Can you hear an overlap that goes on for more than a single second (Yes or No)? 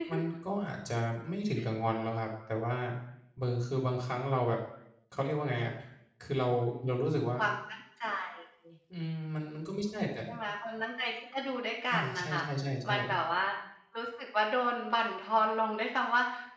No